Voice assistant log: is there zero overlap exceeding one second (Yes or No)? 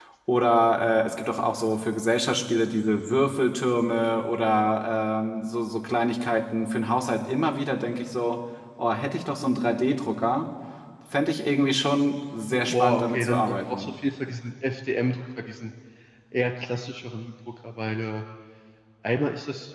No